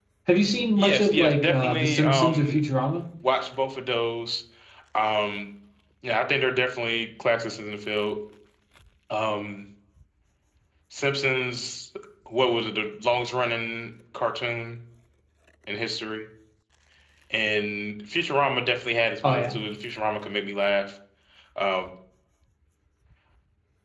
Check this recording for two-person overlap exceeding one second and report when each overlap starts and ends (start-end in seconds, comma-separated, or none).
0.8-2.6